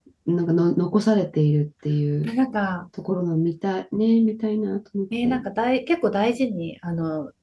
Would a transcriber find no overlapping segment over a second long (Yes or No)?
Yes